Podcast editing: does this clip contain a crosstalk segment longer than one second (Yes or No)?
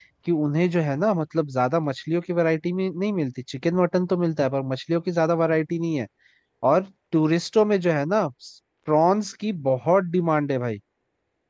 No